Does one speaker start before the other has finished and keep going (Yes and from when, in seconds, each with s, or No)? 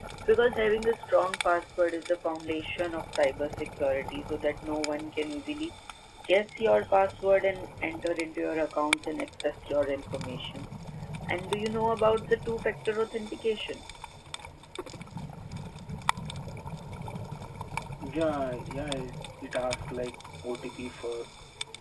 No